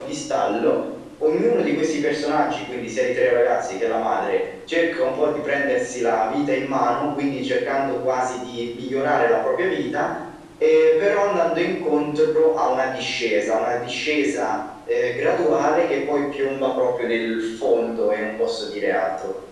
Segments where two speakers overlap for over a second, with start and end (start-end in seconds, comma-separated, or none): none